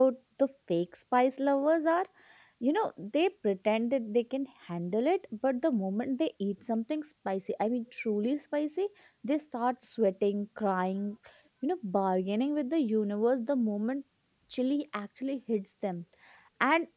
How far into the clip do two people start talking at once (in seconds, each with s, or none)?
none